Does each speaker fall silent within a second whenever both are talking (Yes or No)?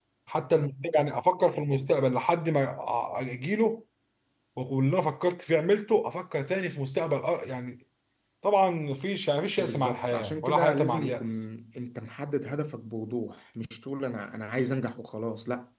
No